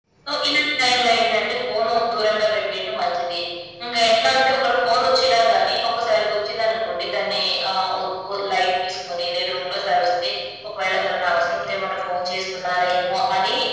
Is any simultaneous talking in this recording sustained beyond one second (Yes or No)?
No